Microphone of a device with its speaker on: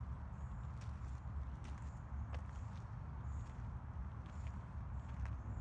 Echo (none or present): none